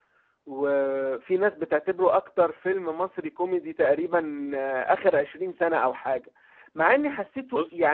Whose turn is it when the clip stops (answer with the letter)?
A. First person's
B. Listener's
A